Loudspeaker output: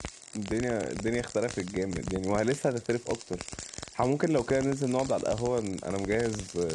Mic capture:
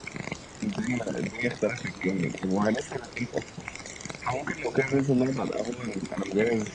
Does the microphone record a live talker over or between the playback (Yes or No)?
No